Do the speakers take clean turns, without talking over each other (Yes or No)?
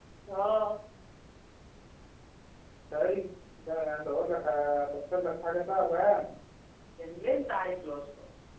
Yes